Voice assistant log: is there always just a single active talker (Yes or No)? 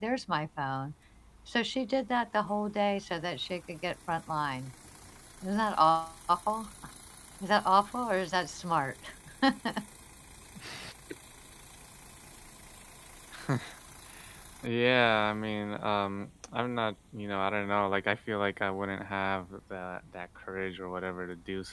Yes